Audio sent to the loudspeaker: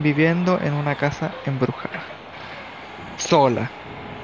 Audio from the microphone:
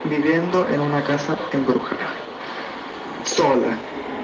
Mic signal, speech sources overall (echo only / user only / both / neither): echo only